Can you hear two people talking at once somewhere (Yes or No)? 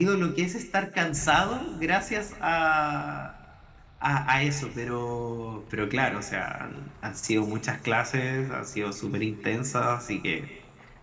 No